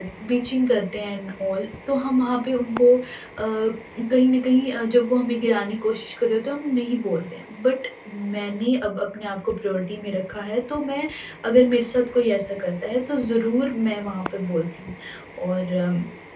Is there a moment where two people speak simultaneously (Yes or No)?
No